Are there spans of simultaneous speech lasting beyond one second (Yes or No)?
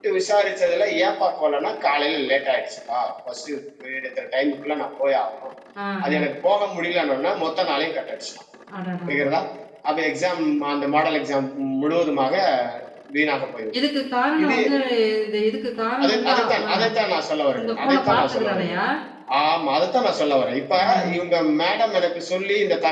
Yes